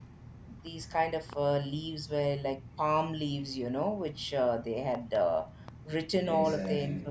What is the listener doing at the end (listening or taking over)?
listening